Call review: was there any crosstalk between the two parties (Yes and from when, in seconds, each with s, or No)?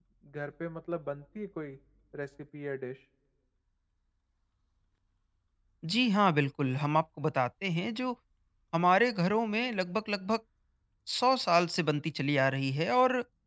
No